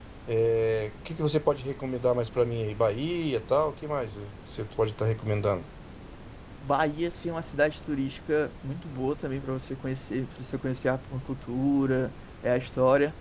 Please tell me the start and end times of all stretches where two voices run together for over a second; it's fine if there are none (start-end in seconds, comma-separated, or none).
none